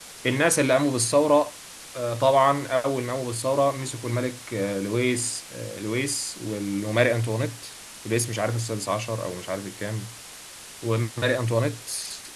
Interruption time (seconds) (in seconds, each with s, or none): none